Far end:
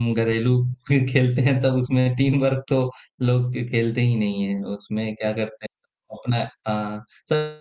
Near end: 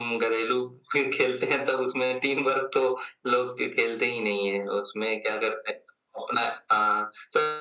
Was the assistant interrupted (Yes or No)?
No